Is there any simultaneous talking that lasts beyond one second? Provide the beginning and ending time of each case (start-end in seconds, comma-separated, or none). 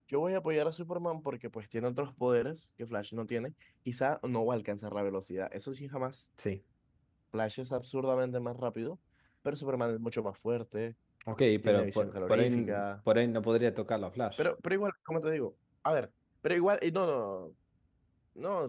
11.6-12.8